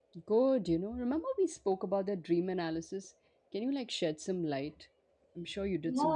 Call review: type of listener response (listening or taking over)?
taking over